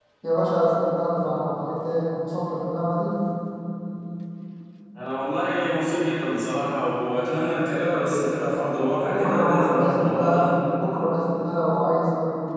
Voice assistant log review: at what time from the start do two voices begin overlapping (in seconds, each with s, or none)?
9.0 s